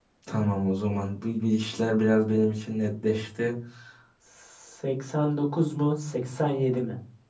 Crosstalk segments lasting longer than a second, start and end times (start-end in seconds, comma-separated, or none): none